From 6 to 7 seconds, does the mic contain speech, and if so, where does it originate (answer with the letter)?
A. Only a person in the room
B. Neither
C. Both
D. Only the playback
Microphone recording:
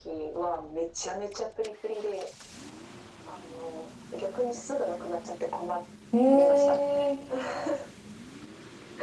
C